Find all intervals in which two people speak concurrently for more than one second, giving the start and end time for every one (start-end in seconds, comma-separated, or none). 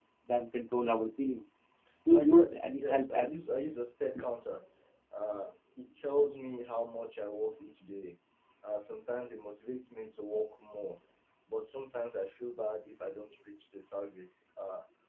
2.1-3.5